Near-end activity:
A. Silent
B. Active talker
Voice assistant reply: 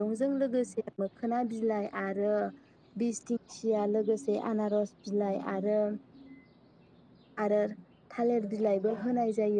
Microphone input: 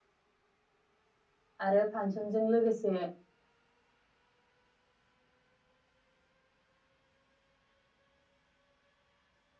B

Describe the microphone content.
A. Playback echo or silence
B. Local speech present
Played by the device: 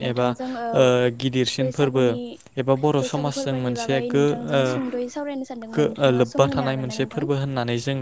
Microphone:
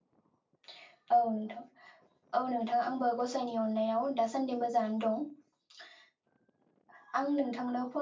B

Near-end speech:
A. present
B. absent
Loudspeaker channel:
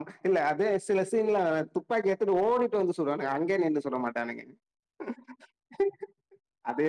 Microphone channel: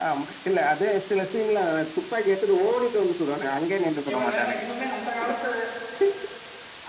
A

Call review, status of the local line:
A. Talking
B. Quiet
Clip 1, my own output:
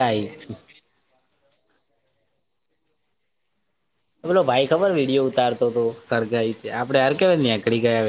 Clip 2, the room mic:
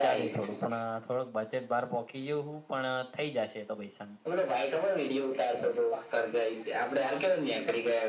A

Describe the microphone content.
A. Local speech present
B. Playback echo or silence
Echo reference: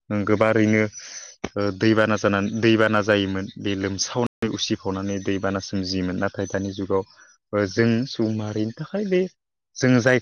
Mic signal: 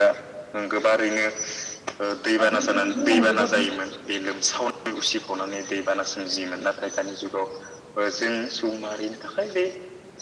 A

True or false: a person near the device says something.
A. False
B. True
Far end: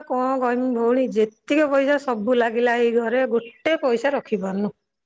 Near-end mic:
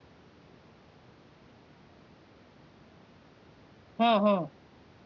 B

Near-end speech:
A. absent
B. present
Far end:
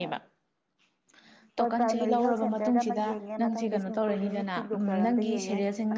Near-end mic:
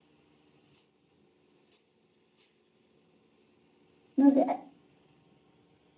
B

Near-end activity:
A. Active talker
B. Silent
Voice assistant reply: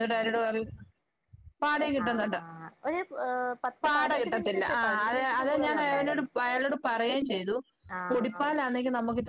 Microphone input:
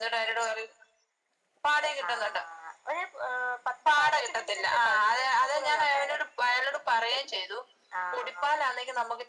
B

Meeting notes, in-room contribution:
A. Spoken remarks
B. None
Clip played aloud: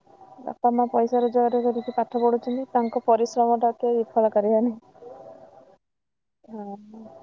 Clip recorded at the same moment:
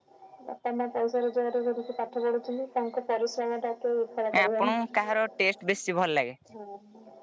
A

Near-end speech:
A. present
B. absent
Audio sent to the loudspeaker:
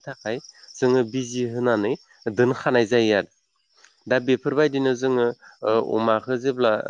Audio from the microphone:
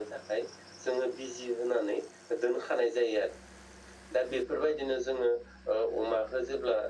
A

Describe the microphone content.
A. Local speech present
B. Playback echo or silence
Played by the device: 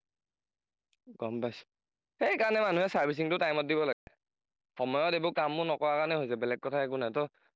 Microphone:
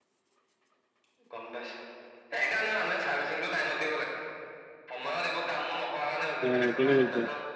A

